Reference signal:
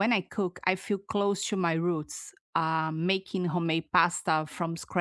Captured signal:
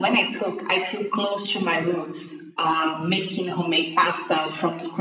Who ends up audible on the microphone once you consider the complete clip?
echo only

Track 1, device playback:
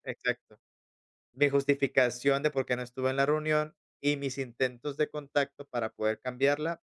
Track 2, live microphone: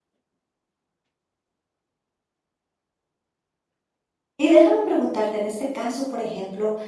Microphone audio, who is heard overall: user only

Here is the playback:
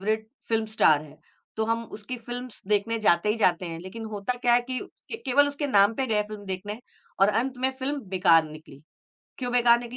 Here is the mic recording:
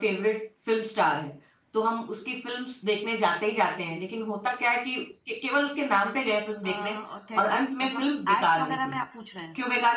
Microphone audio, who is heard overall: both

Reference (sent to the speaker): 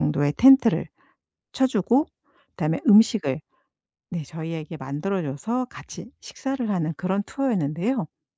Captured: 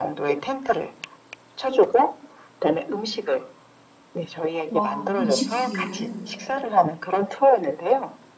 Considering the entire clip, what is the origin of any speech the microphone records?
both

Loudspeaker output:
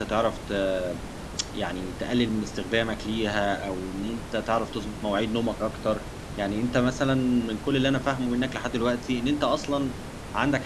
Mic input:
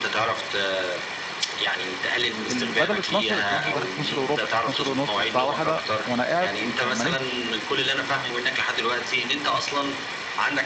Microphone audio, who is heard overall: both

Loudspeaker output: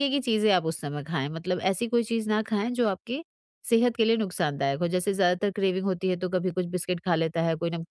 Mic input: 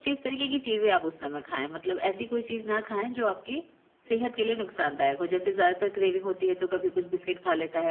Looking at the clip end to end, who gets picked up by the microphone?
echo only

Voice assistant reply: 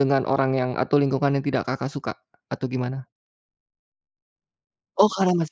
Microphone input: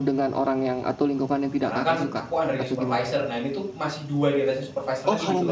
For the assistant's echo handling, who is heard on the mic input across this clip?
both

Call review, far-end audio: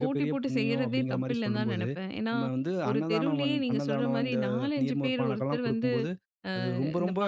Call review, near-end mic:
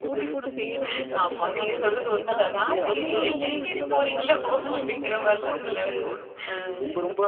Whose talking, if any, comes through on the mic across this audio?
both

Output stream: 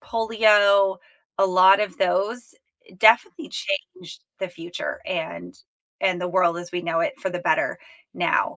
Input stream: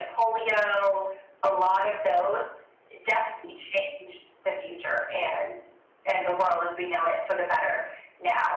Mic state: echo only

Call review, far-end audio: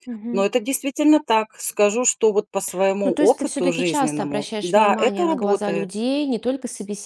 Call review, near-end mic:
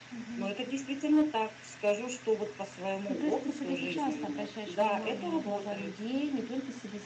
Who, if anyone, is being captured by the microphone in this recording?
echo only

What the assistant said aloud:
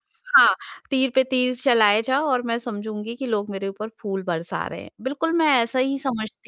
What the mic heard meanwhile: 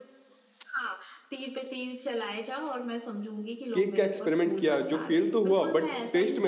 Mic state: both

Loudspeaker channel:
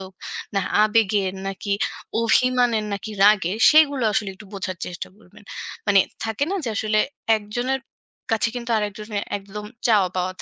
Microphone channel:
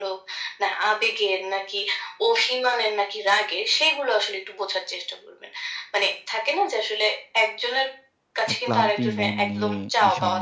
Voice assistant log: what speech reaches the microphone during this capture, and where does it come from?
both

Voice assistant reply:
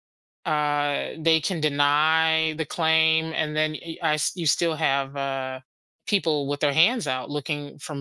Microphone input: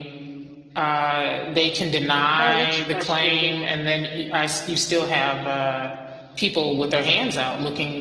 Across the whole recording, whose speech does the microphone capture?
both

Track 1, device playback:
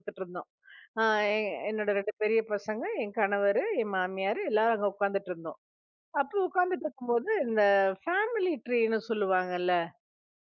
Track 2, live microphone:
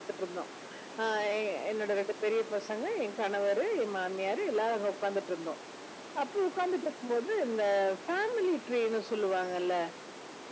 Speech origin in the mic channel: echo only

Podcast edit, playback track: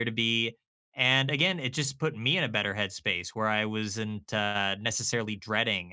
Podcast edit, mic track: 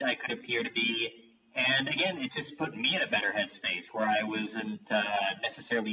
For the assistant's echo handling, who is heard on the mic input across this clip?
echo only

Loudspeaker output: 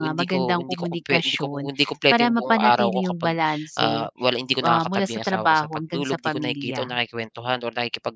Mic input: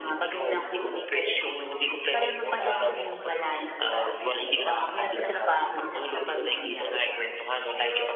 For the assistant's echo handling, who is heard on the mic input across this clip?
both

